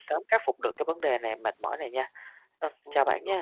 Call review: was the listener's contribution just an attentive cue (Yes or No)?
No